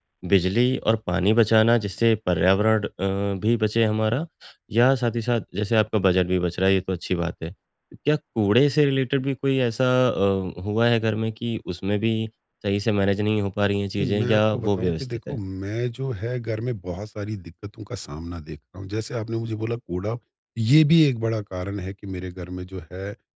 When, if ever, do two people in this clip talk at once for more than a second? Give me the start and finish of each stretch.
14.0-15.4

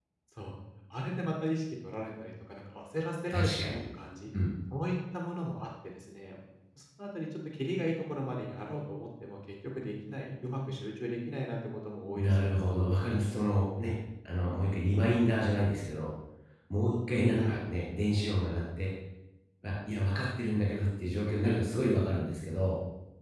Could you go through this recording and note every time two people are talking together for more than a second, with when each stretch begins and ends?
none

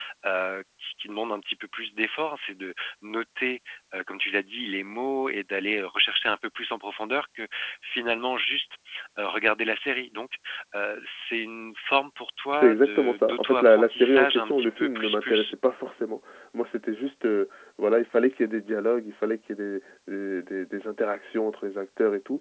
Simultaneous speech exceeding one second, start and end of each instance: 12.6-15.5

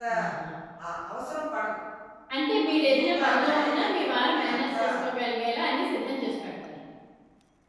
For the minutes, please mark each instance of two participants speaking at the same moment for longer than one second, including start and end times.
2.8-4.8

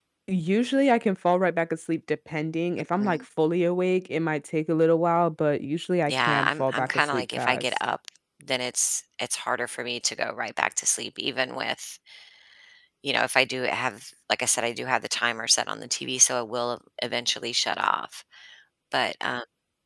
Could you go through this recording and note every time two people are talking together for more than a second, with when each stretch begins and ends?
6.1-7.7

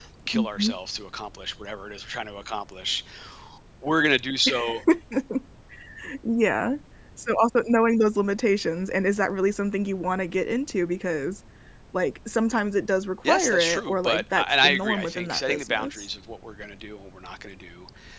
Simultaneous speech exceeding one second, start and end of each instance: 13.3-16.1

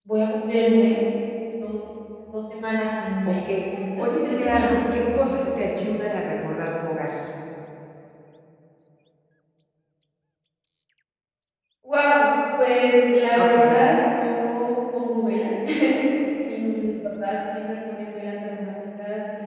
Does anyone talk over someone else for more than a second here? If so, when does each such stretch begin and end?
4.0-5.3

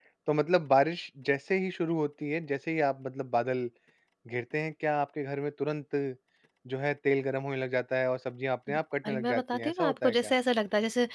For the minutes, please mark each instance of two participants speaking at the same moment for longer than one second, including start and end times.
9.1-10.3

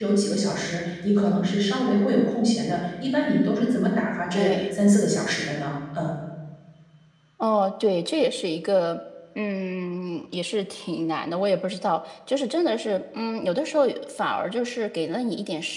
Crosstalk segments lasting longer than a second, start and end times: none

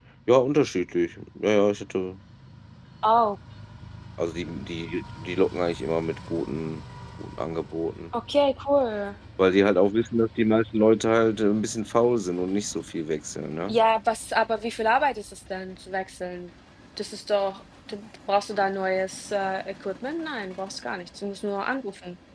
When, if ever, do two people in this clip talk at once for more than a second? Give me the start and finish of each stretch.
none

